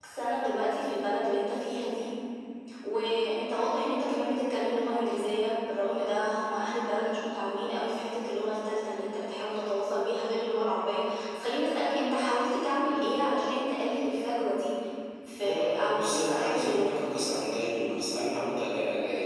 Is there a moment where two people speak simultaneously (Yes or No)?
Yes